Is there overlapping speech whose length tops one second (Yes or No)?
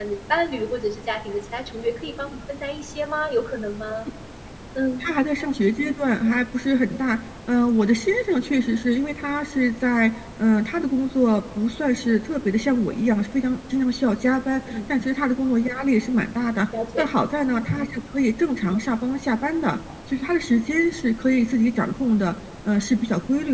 No